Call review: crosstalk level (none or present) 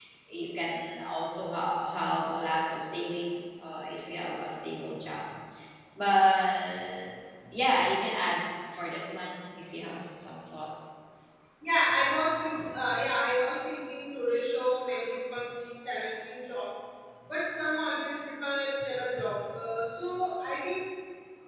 none